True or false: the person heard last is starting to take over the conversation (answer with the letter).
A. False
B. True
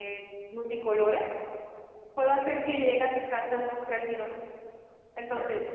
B